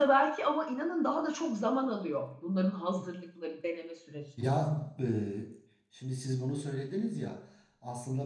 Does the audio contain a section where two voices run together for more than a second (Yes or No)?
No